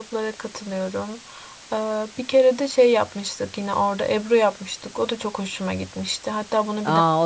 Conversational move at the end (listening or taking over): taking over